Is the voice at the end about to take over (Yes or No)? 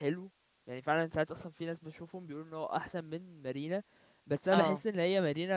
No